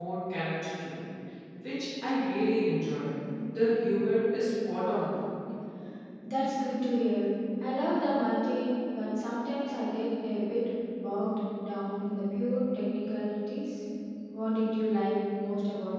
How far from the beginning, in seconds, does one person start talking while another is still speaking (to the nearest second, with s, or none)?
none